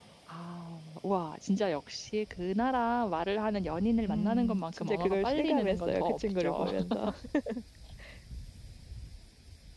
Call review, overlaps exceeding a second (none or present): present